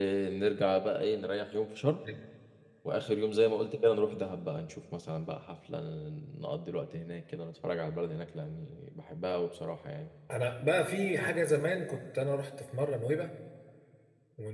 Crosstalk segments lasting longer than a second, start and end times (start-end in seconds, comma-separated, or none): none